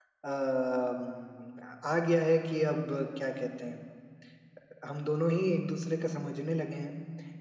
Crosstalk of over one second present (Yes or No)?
No